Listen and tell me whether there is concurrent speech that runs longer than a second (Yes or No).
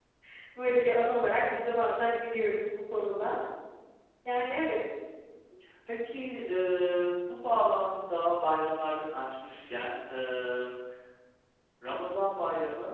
No